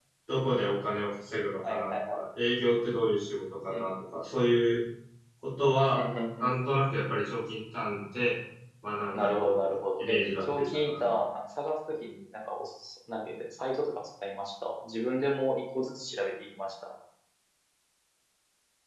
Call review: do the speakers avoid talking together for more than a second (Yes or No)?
No